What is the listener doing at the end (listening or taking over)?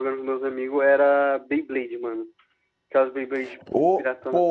taking over